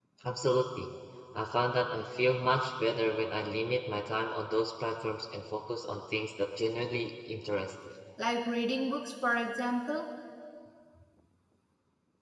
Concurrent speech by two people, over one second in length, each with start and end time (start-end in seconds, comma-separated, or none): none